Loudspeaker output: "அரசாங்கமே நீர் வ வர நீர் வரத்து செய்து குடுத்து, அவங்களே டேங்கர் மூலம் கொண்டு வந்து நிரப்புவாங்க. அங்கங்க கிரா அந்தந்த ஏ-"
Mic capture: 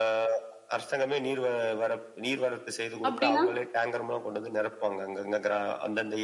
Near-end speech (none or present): present